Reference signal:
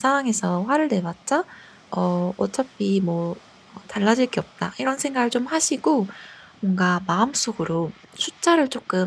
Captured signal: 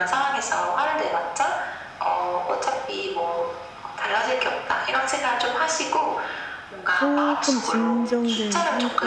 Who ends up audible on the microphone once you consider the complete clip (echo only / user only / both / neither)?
both